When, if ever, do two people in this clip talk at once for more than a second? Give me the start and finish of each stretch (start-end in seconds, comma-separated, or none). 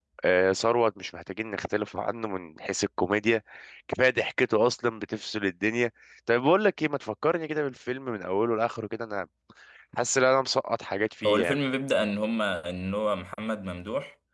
none